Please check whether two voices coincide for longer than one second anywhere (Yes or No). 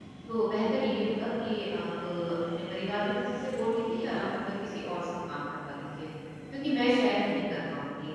No